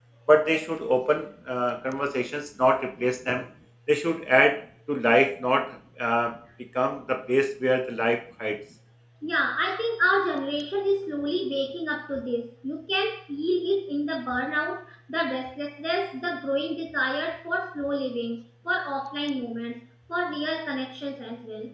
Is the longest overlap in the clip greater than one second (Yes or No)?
No